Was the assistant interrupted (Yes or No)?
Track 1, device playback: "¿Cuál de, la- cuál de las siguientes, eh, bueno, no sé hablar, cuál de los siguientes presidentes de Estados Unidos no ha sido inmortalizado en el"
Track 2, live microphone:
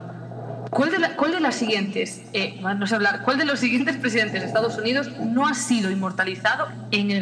No